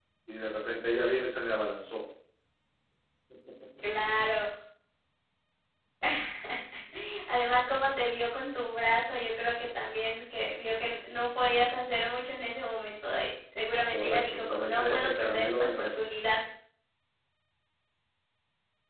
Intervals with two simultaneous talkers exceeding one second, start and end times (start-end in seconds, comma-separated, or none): 13.9-16.0